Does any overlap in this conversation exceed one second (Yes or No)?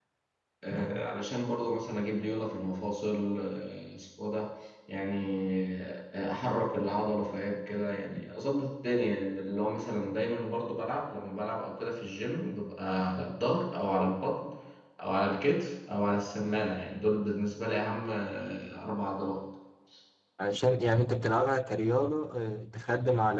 No